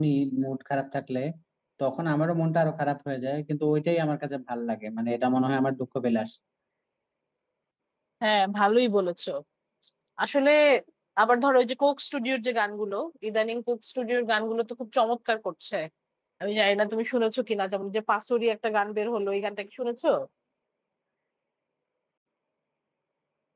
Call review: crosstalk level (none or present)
none